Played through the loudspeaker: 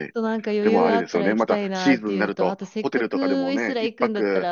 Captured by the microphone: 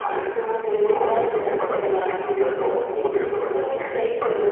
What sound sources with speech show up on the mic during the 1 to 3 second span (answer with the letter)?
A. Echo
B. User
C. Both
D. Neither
A